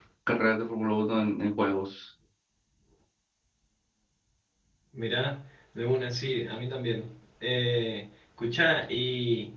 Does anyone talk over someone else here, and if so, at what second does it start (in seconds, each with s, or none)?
none